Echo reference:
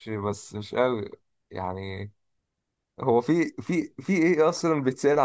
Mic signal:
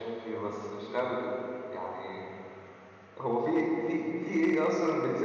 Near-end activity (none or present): none